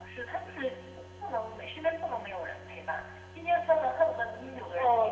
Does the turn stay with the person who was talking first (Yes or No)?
No